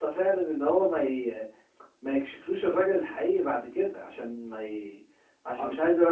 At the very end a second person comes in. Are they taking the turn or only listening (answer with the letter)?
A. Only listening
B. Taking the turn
A